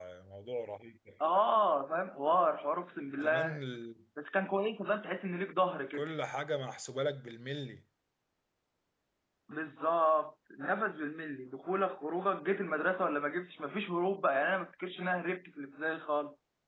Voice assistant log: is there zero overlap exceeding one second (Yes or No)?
Yes